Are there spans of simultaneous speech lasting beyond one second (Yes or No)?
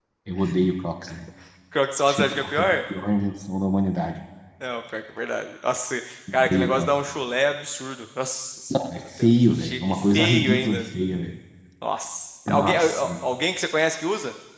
Yes